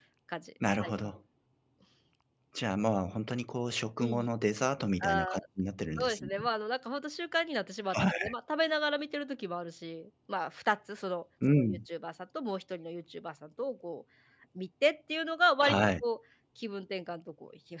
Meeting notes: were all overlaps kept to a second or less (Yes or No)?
Yes